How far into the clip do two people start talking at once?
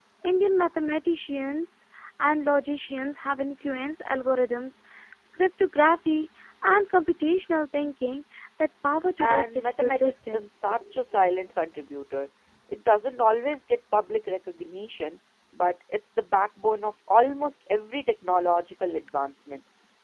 9.2 s

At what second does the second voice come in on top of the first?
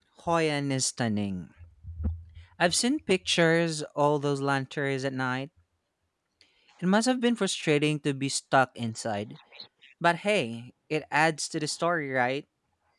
none

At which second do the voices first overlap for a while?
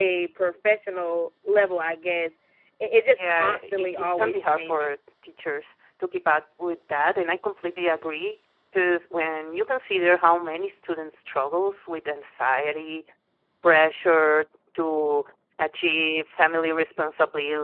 3.2 s

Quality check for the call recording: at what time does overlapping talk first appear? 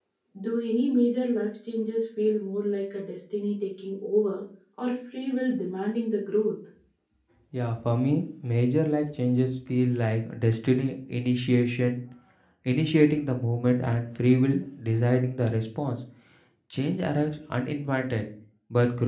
none

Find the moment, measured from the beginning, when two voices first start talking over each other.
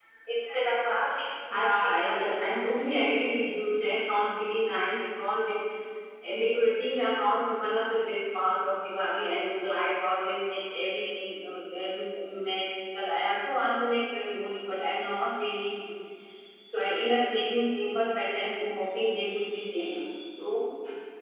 1.5 s

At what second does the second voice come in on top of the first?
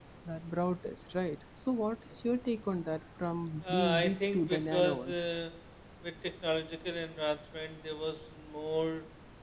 3.6 s

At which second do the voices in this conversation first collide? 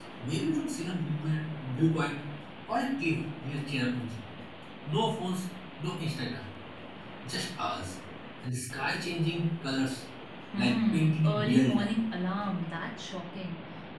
10.6 s

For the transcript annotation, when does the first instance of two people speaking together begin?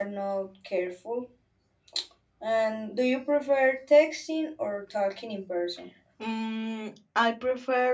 none

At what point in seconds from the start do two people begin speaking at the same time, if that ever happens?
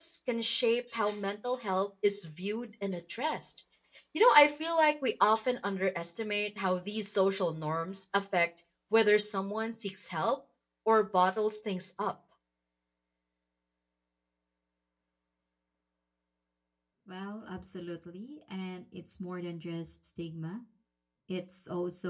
none

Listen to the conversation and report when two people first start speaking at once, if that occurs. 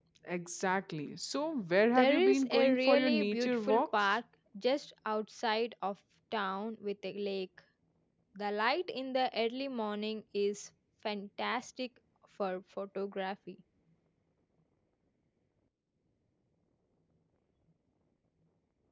2.0 s

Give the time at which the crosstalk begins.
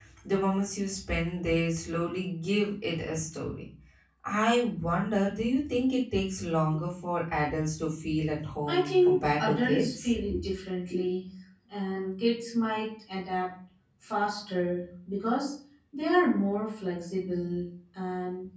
8.7 s

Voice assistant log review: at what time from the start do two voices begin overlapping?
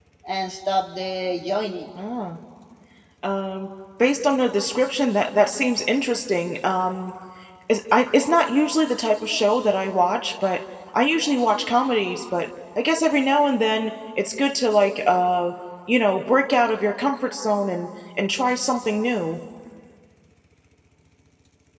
none

